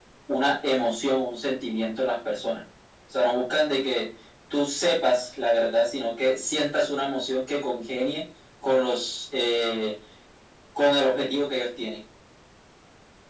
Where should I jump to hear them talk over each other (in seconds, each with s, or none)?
none